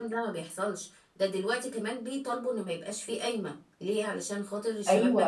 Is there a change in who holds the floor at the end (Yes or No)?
Yes